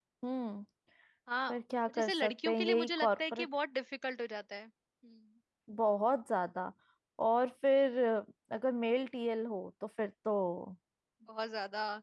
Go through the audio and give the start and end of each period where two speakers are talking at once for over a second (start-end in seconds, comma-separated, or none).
1.9-3.5